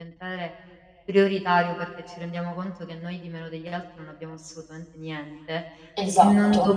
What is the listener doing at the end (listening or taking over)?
listening